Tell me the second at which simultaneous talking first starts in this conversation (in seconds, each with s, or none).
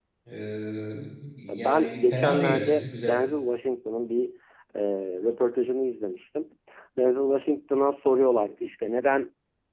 1.5 s